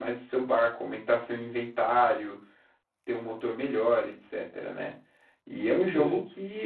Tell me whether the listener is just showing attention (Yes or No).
Yes